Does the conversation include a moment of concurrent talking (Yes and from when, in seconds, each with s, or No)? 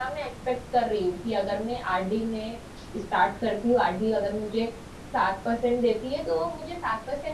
No